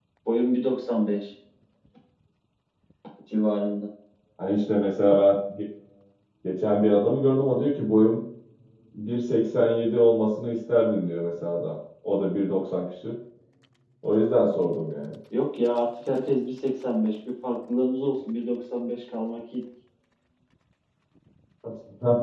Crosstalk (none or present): none